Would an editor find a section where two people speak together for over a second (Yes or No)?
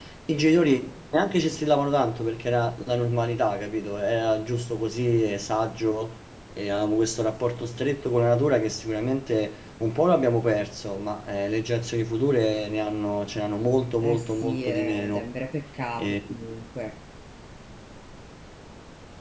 Yes